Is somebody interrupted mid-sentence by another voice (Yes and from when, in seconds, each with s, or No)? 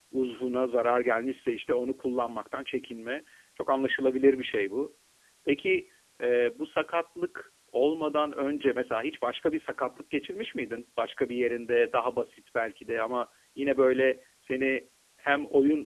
No